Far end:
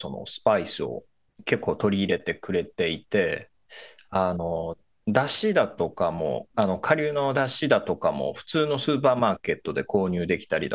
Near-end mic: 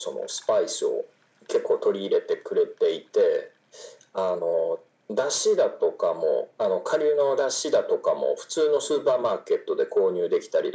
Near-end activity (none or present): none